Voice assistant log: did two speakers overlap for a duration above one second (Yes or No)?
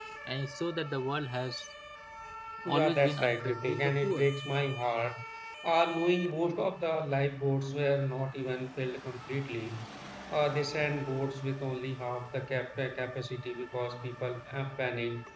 Yes